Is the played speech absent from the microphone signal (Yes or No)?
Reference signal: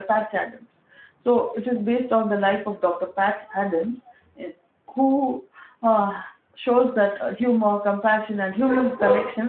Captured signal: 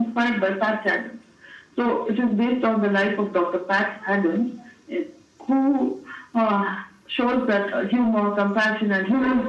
No